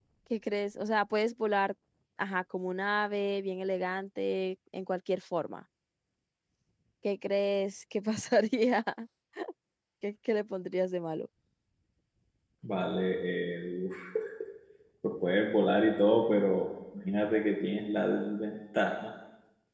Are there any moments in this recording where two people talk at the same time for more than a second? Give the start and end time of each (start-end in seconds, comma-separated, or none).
none